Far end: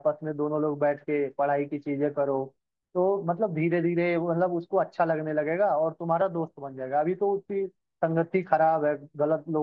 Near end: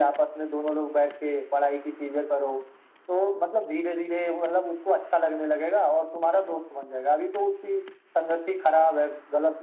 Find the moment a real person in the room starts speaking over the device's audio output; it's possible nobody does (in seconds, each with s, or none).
none